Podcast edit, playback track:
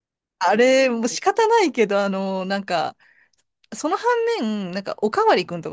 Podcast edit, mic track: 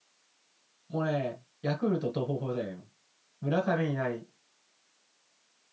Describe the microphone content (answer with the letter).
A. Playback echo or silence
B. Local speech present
B